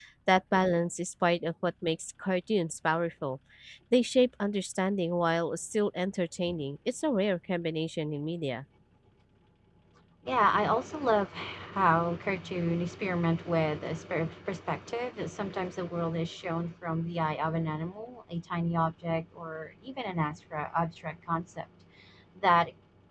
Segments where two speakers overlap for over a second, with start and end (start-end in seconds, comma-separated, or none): none